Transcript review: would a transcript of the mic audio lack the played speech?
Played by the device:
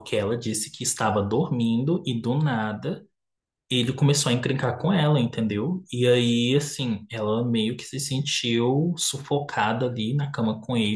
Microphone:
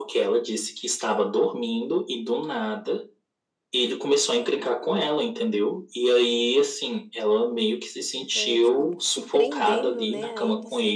No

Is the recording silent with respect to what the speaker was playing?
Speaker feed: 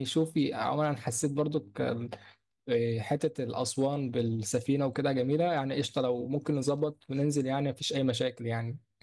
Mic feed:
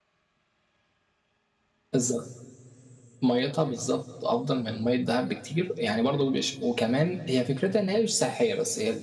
Yes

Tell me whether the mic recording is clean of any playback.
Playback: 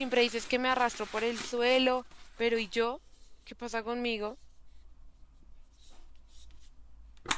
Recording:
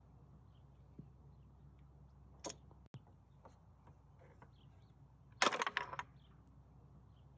Yes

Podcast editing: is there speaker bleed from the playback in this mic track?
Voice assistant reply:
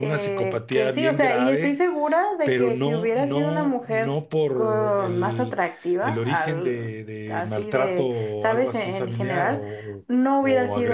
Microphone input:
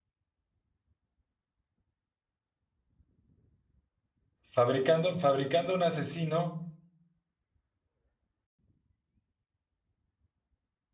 No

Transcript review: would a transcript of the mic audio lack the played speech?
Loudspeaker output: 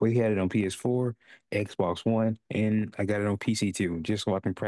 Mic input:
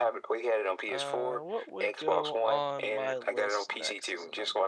No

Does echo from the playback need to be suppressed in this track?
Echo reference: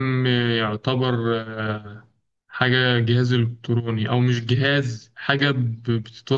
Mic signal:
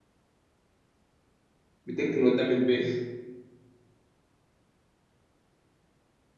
No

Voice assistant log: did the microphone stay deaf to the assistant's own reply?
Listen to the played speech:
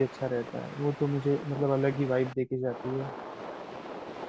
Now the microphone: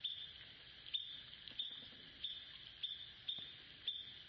Yes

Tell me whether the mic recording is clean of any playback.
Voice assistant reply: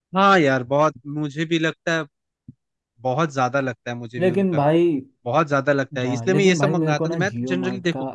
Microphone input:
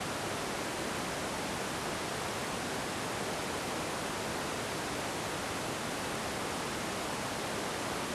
Yes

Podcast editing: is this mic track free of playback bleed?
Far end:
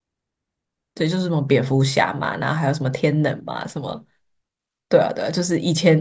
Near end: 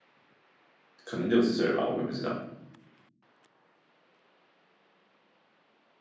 Yes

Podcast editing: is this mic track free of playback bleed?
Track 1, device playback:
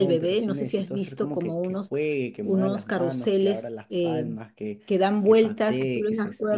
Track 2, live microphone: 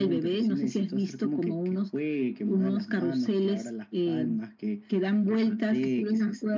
No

